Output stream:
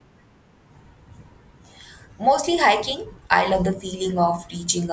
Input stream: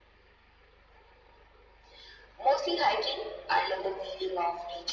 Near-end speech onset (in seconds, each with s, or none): none